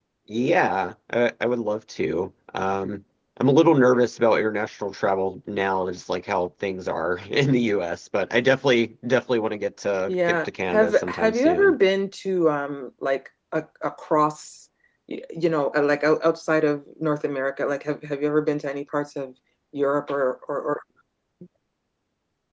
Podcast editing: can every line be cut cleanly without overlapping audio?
No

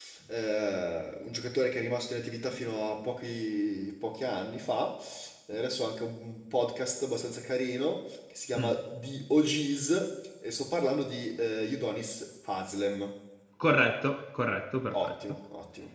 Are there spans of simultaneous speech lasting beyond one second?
No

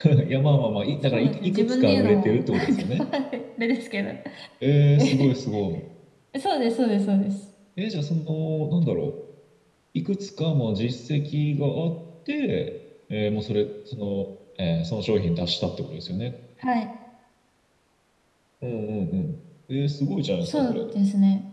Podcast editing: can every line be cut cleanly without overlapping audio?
No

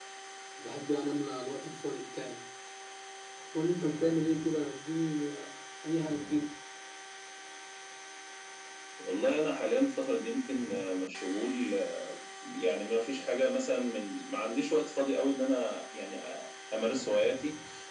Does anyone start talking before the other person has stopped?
No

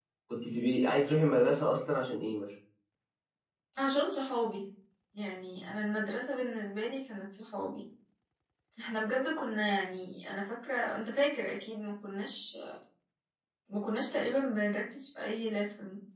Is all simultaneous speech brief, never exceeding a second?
Yes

